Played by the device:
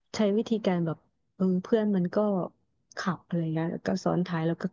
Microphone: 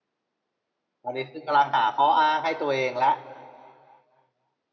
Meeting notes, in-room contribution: present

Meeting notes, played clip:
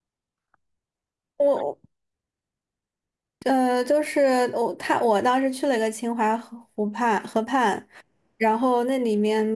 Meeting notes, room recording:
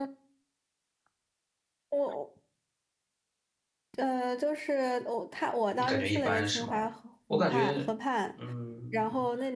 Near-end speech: present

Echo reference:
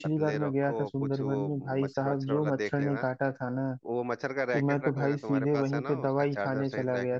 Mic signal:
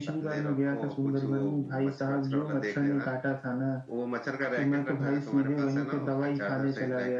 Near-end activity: none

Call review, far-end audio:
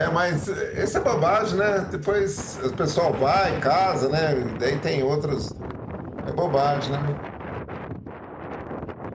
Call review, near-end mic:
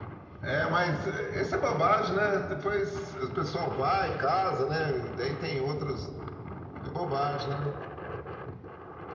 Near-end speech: none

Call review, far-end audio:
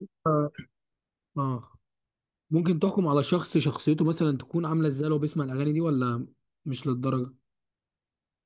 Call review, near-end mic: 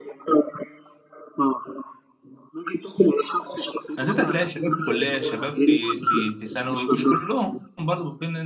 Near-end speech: present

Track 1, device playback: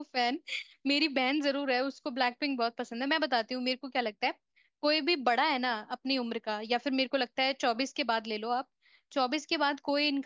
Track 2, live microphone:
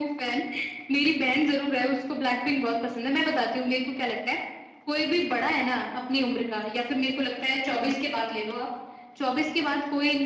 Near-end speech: none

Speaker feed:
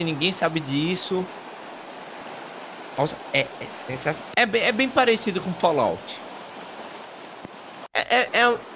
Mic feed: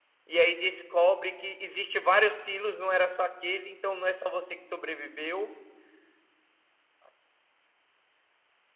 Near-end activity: present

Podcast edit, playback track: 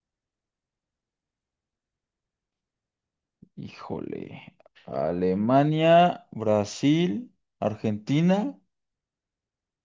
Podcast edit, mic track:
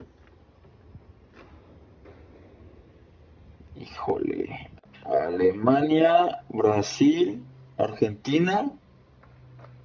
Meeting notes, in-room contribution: none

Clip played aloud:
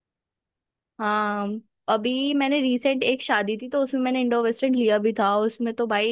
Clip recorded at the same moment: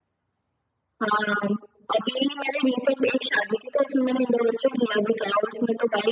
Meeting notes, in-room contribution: none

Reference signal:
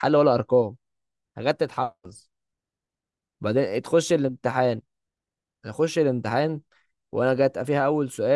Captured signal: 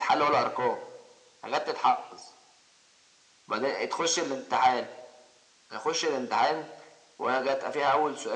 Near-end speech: none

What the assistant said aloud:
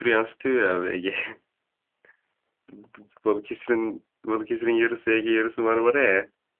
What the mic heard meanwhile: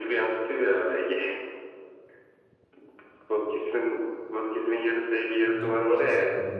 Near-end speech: present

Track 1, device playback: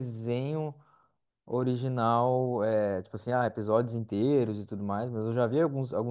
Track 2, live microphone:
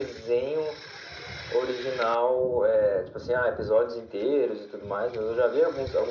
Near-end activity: none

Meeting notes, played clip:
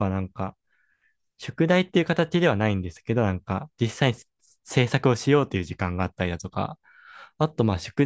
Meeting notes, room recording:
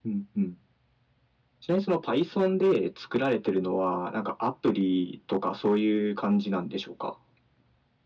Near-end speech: present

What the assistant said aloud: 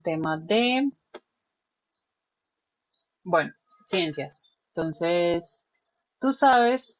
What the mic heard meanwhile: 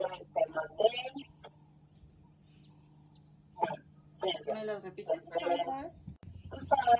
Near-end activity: present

